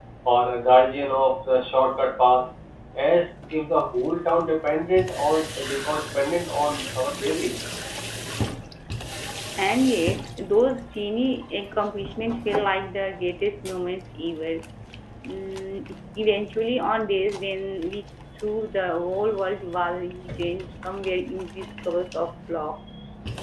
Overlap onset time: none

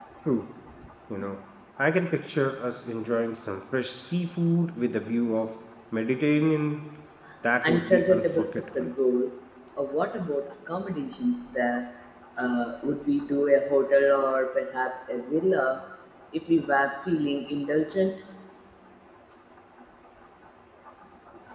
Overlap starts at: 7.7 s

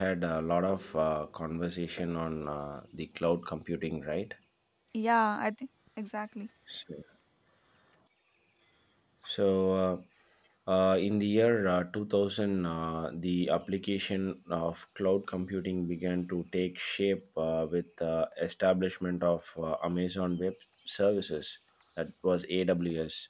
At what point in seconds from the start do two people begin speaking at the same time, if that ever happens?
none

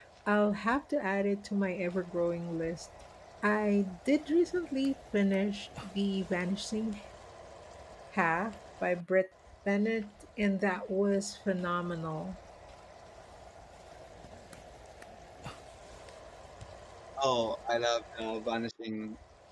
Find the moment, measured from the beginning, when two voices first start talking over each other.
none

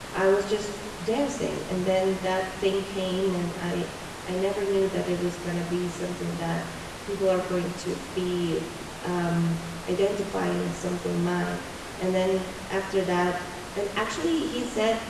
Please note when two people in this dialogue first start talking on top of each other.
none

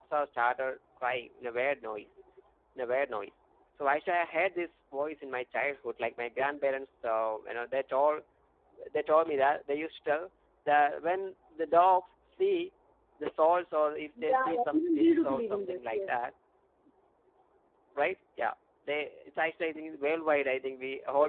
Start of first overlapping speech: 14.2 s

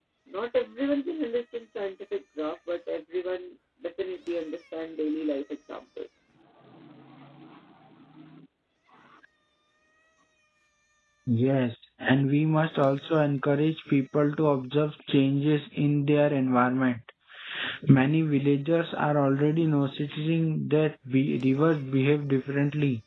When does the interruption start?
none

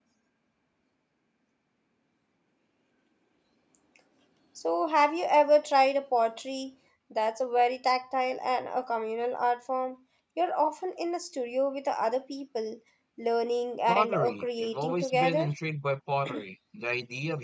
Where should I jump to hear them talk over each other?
13.9 s

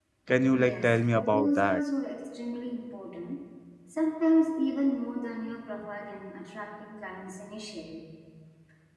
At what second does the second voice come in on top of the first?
0.5 s

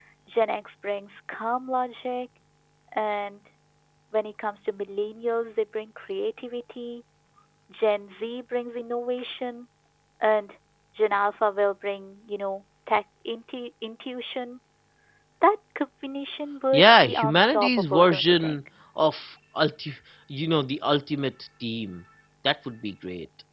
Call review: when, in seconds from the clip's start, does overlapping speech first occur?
16.7 s

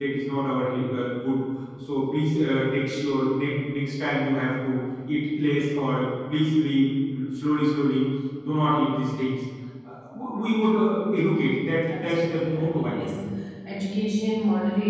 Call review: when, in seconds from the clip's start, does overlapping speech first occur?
11.8 s

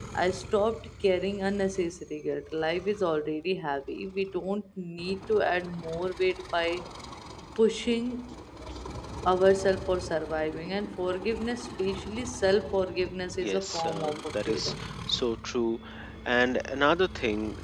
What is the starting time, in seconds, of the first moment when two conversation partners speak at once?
13.4 s

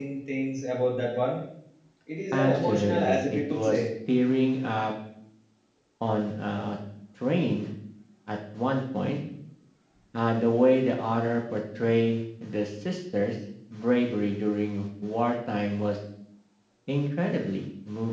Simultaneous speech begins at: 2.3 s

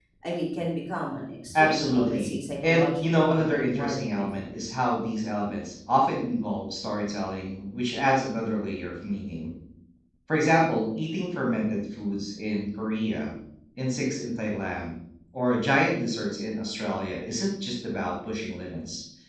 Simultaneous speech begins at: 1.5 s

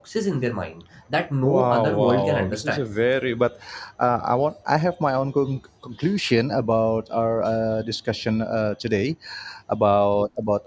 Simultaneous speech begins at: 1.4 s

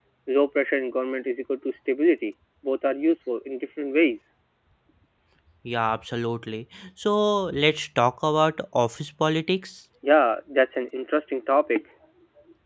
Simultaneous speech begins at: none

